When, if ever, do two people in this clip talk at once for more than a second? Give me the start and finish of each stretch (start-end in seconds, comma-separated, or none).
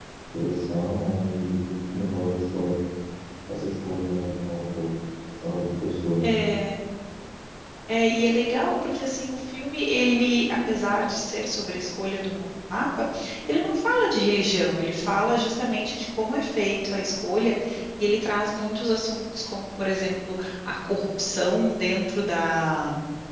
none